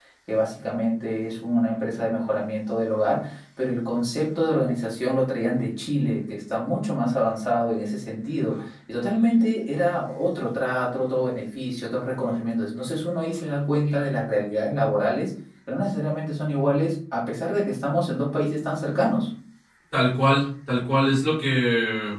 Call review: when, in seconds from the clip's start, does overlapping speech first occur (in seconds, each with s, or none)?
none